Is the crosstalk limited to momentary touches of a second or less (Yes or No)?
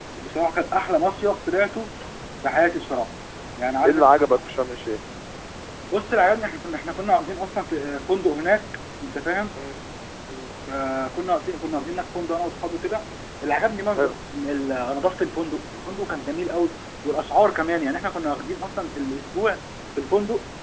Yes